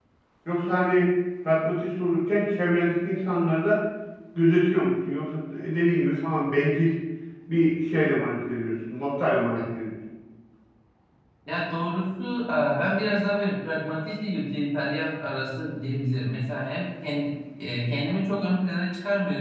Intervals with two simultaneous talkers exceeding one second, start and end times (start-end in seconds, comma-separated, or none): none